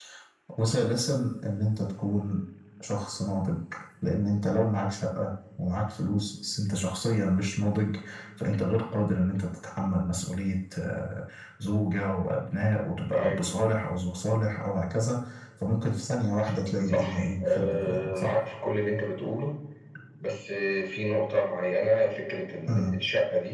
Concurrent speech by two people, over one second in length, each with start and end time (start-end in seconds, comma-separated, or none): 16.9-18.4